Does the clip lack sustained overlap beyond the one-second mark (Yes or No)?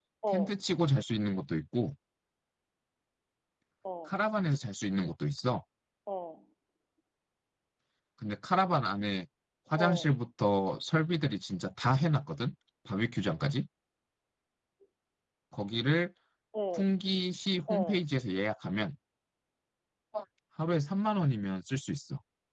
Yes